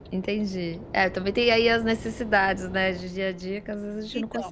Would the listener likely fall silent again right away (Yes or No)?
No